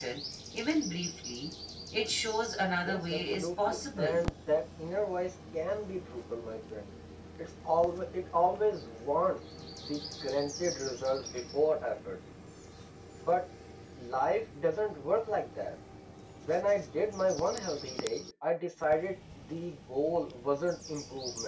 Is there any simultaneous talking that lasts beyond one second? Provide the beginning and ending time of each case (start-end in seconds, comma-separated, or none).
2.8-4.2